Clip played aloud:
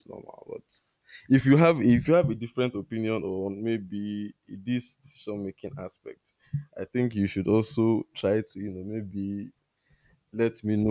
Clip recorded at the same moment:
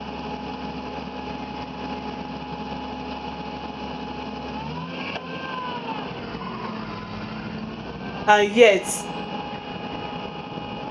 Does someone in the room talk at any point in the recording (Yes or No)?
Yes